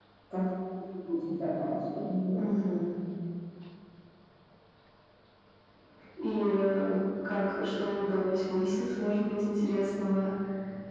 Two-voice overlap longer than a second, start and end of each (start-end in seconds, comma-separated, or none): none